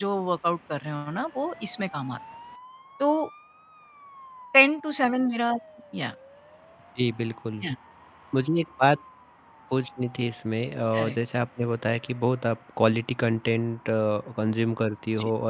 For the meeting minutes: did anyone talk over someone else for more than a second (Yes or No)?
No